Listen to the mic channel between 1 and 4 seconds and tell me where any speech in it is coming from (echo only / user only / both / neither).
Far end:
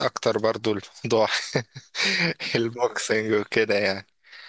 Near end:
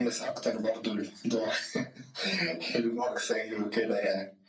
echo only